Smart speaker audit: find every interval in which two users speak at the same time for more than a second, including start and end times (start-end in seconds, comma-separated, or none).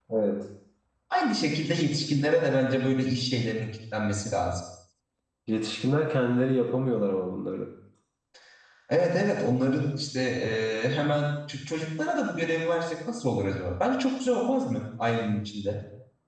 none